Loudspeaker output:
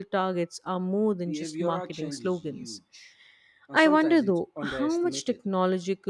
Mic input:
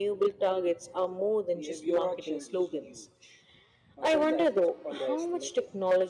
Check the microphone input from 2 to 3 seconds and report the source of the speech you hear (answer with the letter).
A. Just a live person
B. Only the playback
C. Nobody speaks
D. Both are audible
B